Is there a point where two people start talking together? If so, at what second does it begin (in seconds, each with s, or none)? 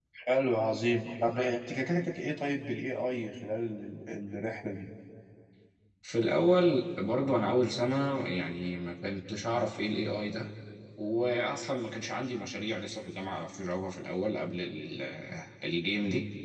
none